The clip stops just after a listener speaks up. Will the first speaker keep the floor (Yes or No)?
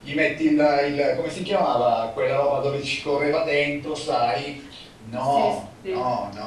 Yes